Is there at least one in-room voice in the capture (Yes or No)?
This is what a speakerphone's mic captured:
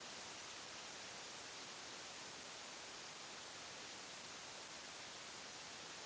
No